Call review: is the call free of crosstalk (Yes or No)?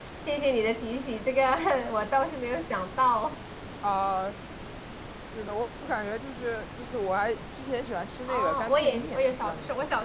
No